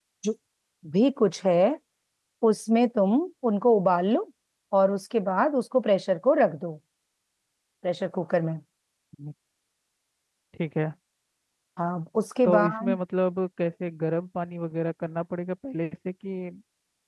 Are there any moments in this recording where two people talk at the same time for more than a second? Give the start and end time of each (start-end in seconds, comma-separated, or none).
none